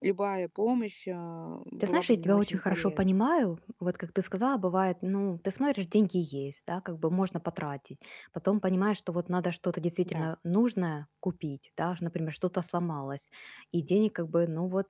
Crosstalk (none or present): present